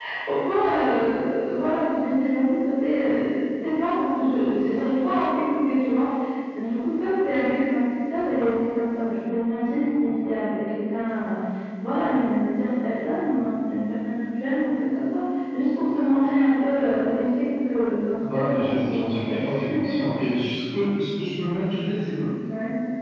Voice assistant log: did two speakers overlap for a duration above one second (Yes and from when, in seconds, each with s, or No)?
Yes, from 18.2 s